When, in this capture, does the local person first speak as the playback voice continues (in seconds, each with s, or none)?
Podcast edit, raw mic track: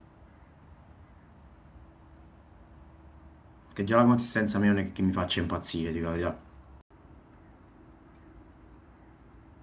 3.7 s